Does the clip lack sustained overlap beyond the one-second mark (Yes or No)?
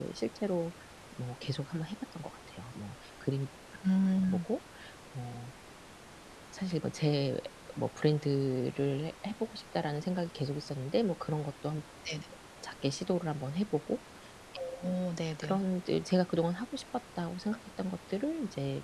Yes